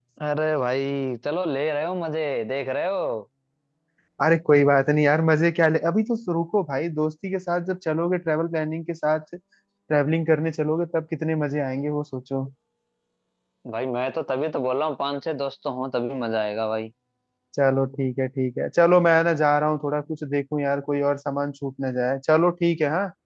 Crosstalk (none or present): none